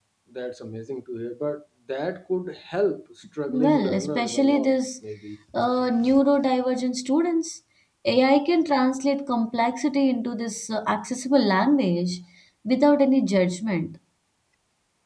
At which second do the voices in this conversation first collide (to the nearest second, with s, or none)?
3 s